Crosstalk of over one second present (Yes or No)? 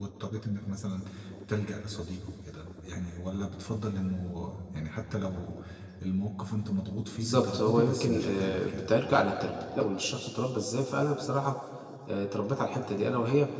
Yes